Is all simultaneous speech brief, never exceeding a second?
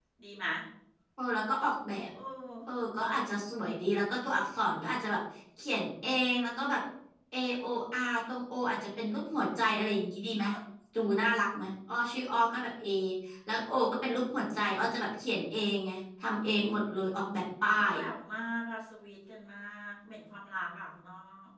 Yes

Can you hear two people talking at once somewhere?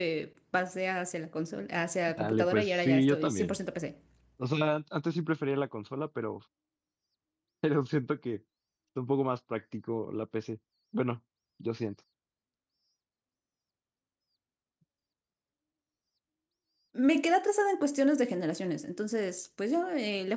Yes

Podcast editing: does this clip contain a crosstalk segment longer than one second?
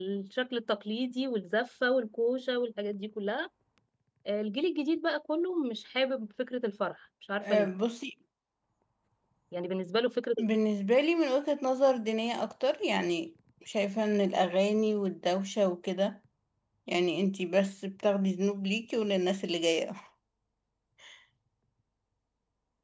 No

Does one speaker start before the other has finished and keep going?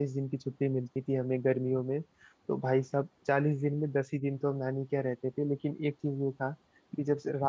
No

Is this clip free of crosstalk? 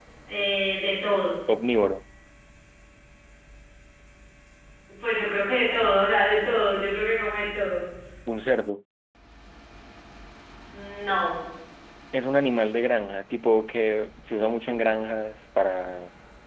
Yes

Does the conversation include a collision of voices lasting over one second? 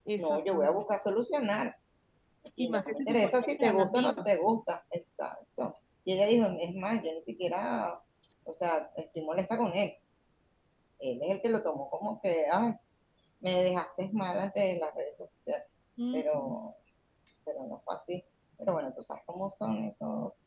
Yes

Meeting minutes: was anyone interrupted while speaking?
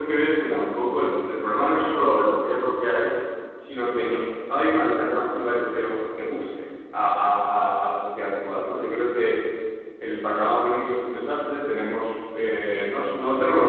No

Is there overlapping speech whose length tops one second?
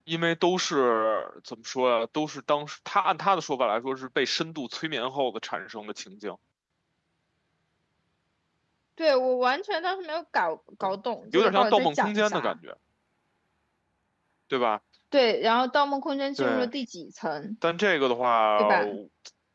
Yes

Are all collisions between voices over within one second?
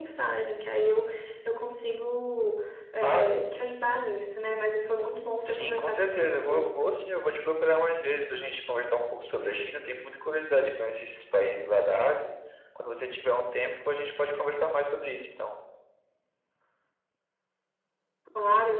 No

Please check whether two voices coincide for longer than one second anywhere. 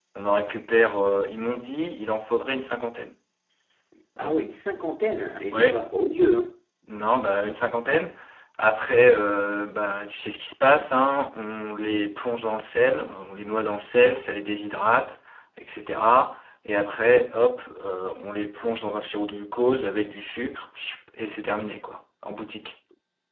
No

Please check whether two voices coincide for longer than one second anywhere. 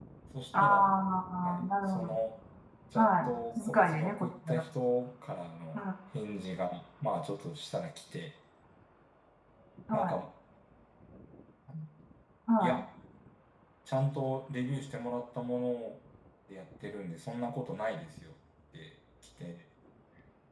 Yes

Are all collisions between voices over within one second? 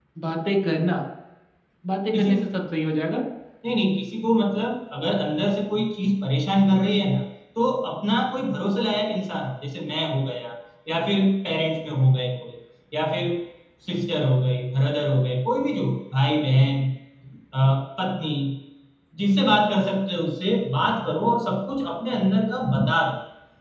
Yes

